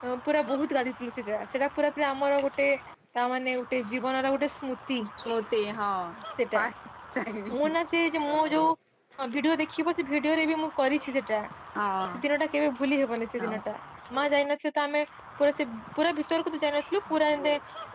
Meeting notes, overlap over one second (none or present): none